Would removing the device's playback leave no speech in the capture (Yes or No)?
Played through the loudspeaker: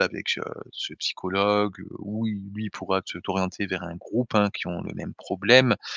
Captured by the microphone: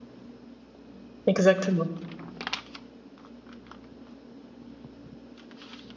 No